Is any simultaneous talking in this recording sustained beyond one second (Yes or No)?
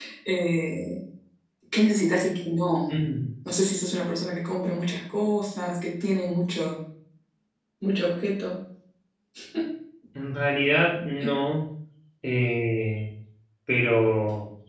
No